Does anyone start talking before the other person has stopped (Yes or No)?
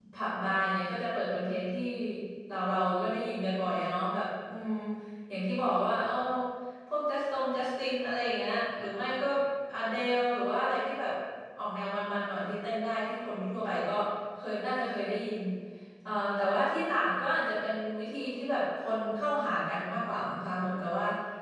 No